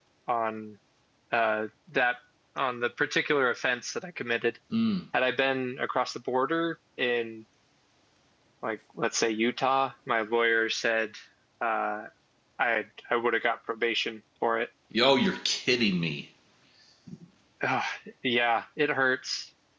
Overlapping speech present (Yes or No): No